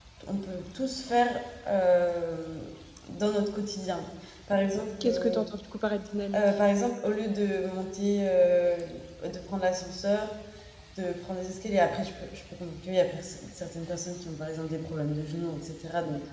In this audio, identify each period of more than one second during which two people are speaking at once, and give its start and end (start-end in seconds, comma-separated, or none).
none